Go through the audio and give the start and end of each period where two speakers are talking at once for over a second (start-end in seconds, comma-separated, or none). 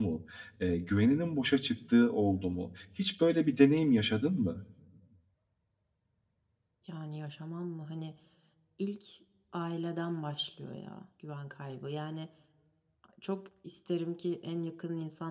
none